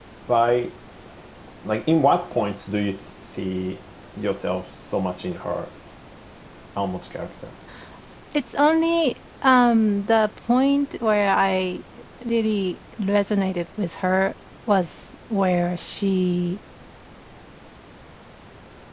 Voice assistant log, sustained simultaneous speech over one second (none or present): none